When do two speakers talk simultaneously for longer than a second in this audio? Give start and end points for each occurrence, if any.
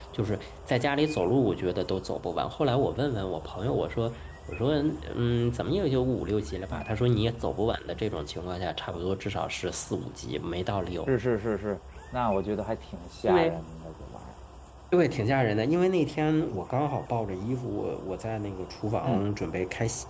none

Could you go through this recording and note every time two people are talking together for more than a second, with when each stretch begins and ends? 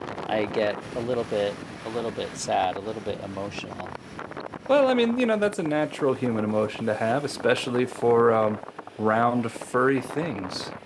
none

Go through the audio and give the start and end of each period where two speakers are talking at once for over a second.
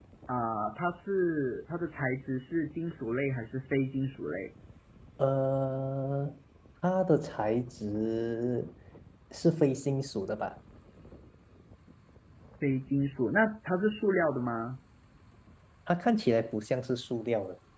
none

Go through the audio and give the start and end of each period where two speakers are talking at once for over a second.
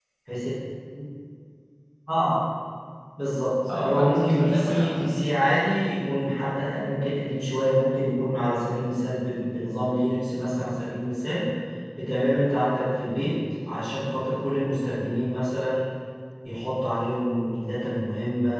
3.7-5.5

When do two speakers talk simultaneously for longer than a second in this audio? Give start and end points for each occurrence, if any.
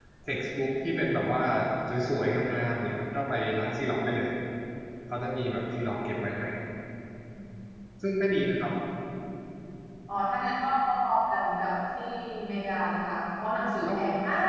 none

